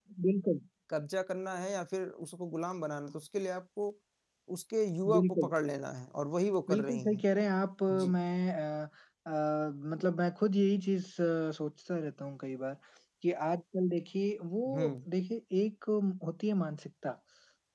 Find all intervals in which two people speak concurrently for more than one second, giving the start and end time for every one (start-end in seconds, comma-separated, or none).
none